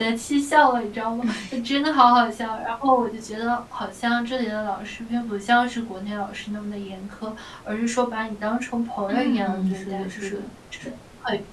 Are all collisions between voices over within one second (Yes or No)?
No